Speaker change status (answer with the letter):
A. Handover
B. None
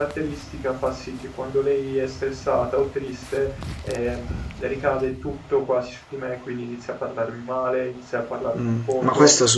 A